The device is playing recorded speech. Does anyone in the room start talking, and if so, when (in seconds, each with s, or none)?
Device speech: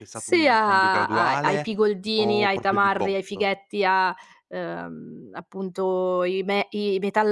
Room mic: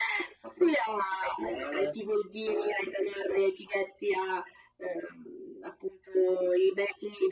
none